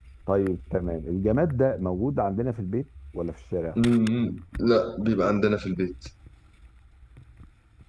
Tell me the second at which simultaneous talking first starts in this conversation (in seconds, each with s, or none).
none